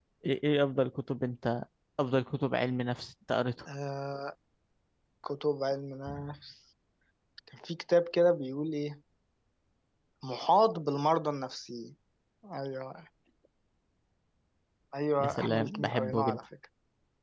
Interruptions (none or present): present